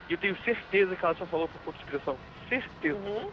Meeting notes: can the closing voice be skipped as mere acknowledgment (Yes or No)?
No